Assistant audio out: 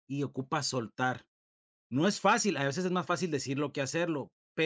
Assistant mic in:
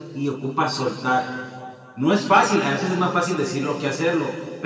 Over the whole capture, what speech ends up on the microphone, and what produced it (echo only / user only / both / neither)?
echo only